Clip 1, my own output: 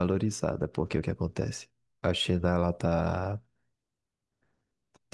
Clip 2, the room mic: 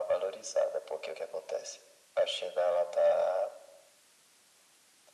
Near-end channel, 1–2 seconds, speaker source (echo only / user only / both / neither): echo only